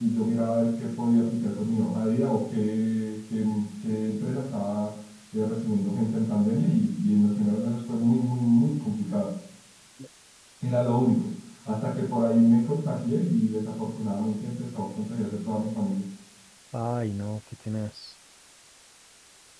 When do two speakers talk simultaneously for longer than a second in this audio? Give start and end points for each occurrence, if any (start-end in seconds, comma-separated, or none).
none